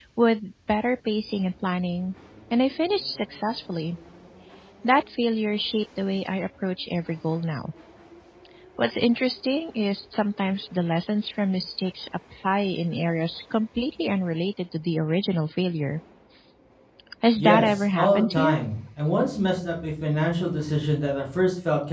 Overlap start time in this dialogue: 17.4 s

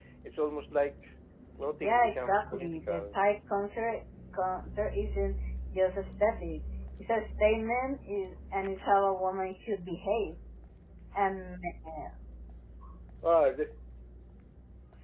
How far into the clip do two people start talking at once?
1.8 s

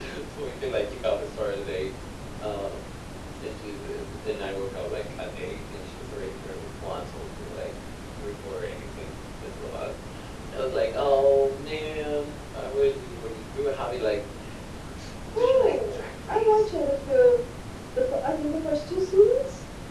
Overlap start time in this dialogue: 15.4 s

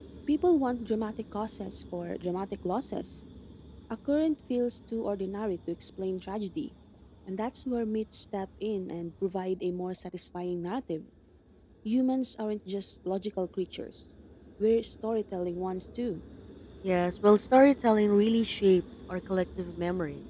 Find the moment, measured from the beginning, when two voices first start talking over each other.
none

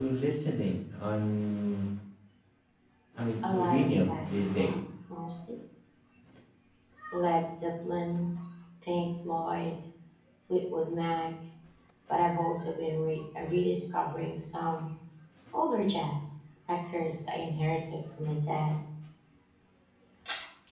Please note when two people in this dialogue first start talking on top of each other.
3.5 s

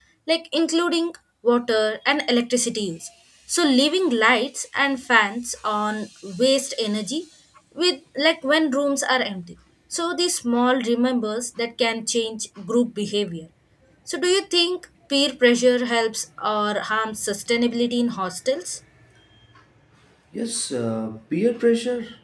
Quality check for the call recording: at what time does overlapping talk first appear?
none

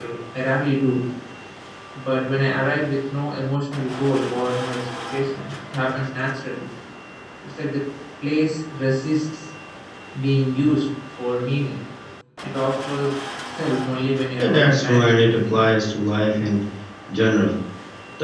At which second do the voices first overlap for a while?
14.4 s

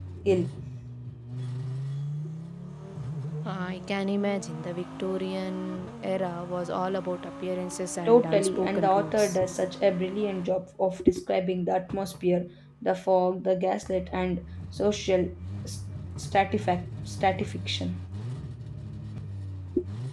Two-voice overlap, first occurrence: 8.0 s

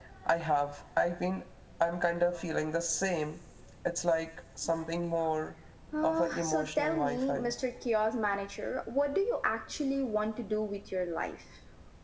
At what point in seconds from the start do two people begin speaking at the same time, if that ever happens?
6.0 s

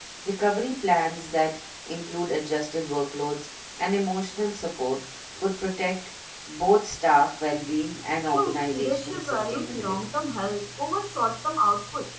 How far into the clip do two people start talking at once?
8.3 s

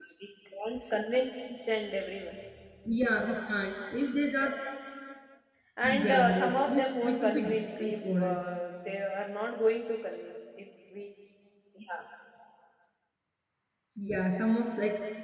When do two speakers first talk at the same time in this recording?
5.8 s

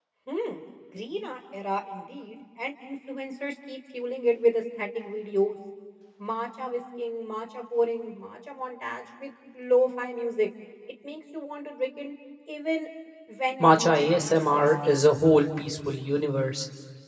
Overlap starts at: 13.6 s

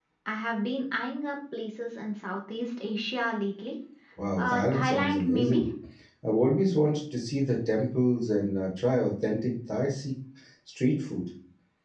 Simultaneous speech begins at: 4.4 s

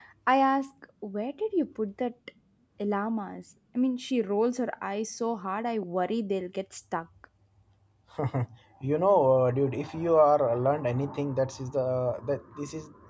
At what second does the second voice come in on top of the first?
none

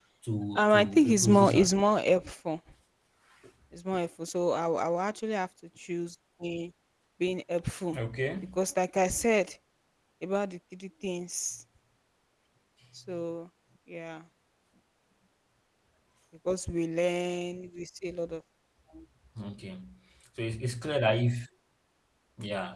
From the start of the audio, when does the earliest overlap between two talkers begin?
0.6 s

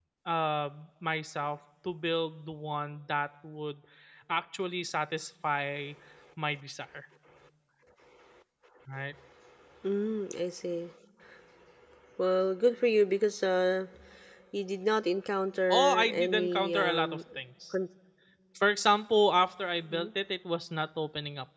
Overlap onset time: 15.7 s

